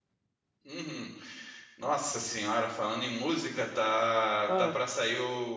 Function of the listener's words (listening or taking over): listening